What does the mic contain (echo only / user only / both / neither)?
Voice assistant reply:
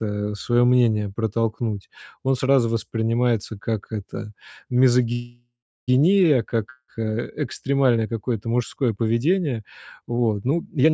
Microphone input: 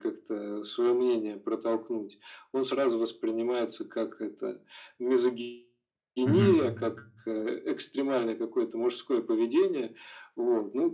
both